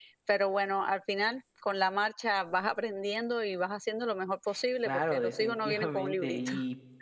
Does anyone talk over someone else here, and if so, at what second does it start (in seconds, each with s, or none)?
4.8 s